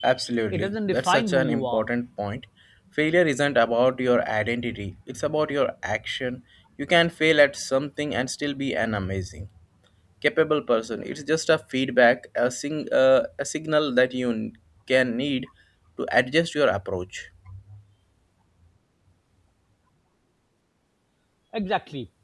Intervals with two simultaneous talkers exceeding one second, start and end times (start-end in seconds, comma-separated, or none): 0.5-1.8